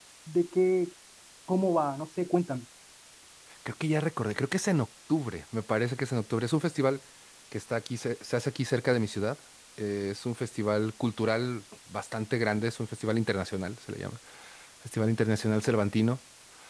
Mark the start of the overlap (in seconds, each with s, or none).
none